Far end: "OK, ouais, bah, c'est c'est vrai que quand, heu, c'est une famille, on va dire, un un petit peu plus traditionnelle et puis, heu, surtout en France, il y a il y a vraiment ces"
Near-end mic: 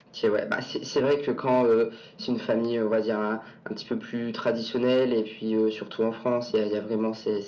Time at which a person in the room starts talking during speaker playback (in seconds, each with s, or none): none